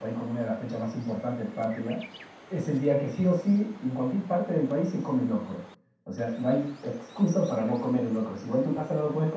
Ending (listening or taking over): listening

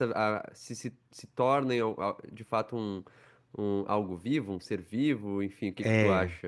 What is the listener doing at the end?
taking over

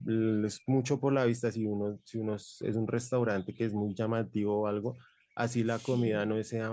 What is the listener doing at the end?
listening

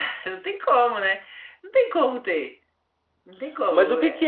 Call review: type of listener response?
taking over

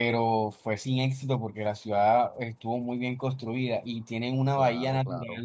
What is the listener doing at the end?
listening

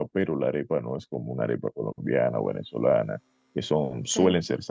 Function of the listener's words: listening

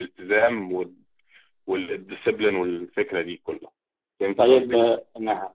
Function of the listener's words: taking over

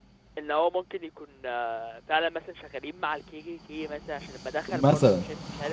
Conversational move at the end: listening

